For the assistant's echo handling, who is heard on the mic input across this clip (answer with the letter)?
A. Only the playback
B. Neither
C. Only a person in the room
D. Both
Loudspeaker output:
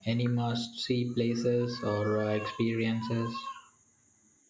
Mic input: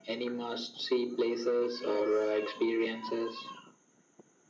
D